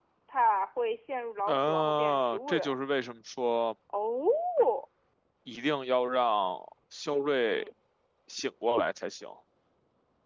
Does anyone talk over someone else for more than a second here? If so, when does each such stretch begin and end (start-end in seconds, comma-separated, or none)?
1.5-2.7